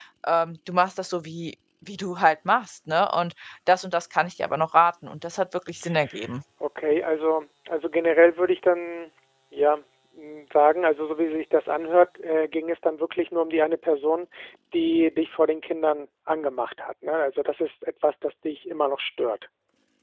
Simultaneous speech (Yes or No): No